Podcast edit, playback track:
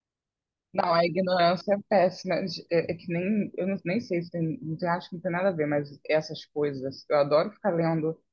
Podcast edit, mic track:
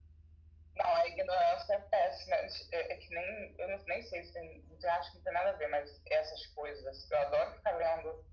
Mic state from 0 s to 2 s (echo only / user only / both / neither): echo only